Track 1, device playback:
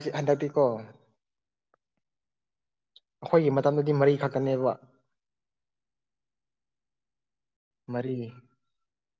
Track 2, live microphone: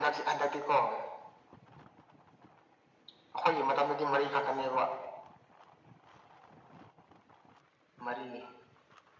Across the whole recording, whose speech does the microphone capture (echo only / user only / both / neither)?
echo only